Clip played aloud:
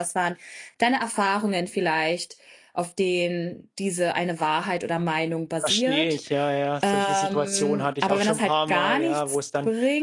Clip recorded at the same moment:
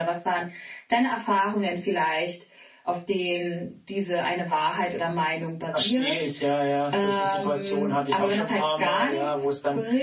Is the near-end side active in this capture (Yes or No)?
No